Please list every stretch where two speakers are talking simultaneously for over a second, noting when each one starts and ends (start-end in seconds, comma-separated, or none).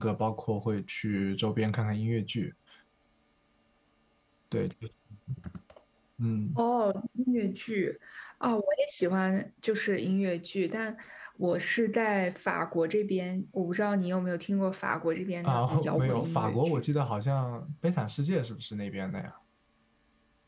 15.4-16.8